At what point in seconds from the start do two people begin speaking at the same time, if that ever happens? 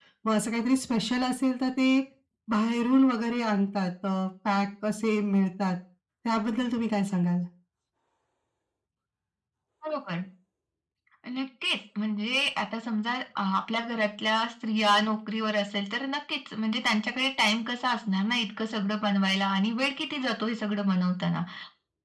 none

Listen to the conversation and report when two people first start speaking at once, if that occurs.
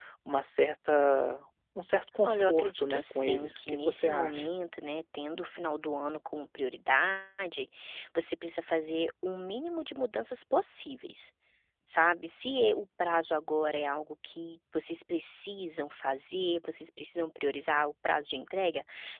2.2 s

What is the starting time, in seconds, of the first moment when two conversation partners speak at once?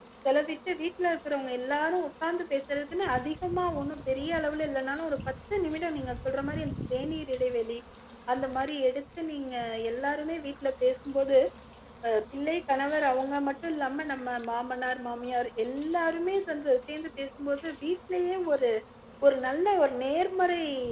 none

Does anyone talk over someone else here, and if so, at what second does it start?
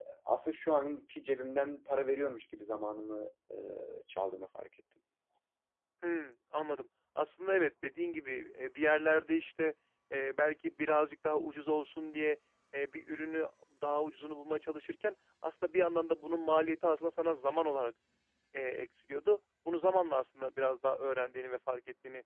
none

